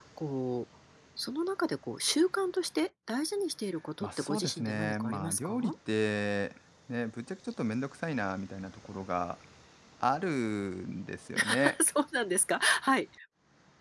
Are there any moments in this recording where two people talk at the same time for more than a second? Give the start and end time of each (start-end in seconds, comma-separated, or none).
4.0-5.7